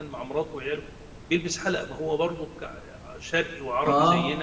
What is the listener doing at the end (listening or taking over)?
listening